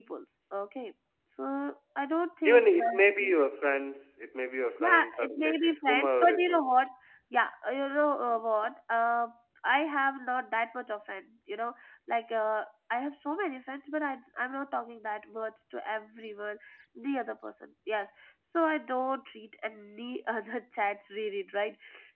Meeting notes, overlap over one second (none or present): present